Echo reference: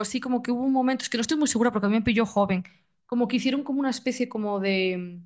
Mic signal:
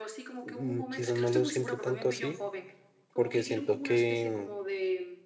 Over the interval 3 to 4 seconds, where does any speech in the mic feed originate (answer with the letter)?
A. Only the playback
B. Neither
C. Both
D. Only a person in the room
C